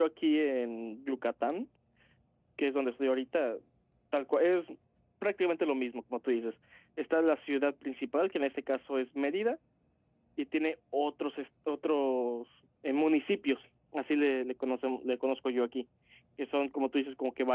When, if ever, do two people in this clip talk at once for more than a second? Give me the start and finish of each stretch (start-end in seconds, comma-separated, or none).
none